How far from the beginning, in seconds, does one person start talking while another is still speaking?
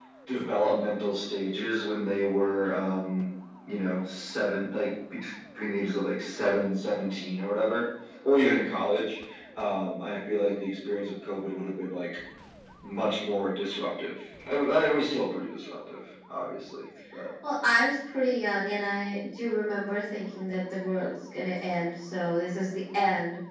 none

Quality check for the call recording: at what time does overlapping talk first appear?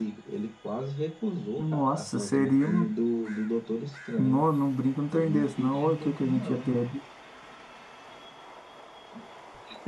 1.6 s

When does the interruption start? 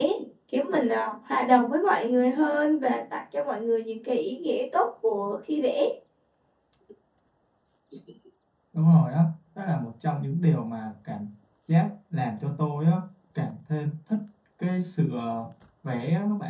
none

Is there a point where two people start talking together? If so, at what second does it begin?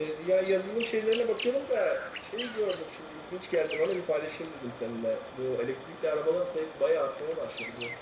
none

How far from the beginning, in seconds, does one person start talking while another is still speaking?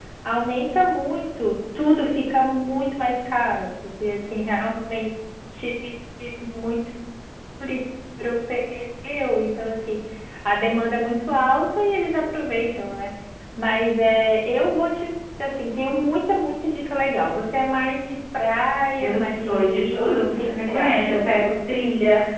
19.0 s

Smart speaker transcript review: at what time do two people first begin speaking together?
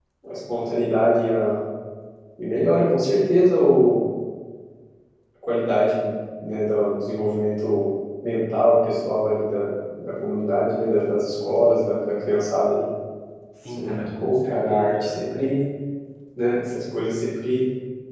13.7 s

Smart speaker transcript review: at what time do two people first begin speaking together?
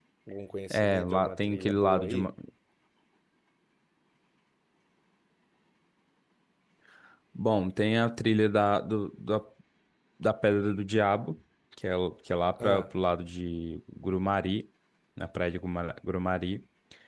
0.7 s

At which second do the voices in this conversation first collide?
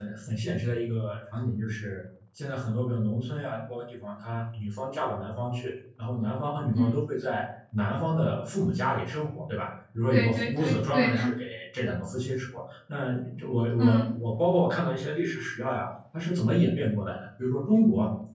10.1 s

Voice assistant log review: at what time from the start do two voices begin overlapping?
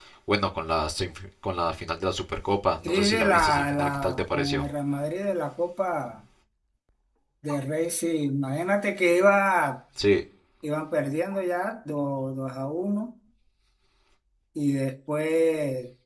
2.8 s

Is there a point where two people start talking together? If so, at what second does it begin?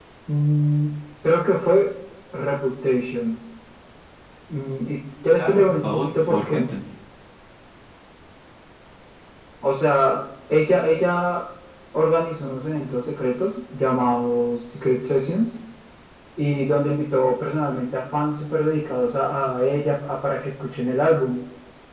5.4 s

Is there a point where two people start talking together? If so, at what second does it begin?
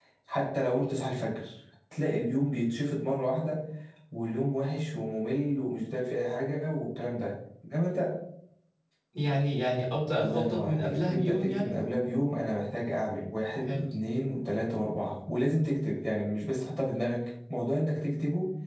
10.2 s

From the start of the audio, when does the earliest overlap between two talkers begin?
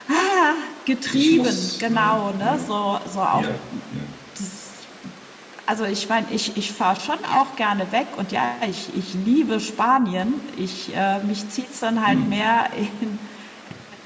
1.1 s

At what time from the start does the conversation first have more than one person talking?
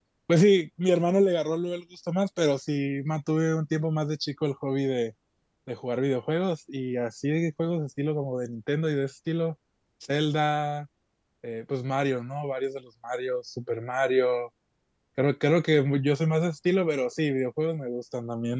none

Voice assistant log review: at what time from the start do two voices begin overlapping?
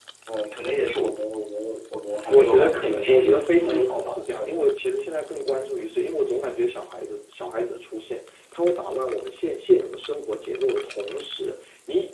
2.3 s

